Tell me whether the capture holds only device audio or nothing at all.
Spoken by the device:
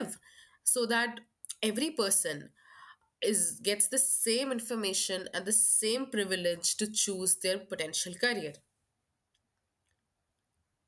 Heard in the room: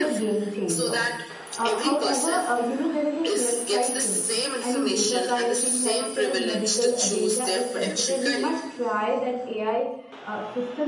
No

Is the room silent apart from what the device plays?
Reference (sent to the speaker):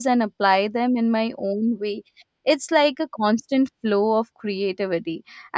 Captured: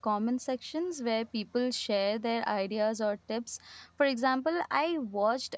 No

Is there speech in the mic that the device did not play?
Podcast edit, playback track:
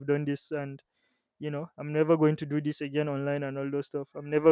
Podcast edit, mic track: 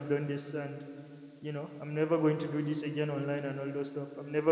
No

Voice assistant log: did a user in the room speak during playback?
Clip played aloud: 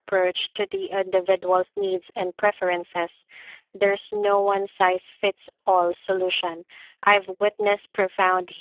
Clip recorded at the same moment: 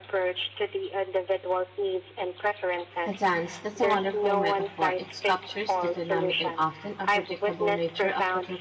Yes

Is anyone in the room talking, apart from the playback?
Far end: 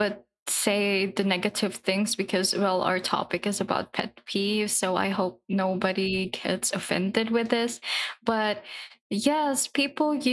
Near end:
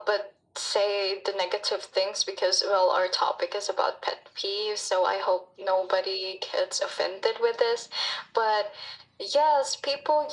No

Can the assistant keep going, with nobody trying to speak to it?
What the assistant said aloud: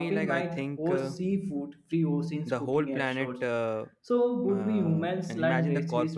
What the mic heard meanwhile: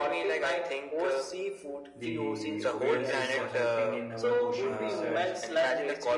No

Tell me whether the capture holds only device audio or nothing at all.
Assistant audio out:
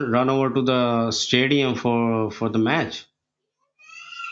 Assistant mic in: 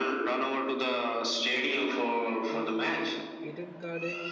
No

